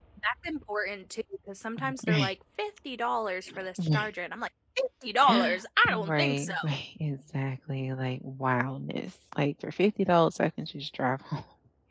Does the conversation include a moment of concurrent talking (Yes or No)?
Yes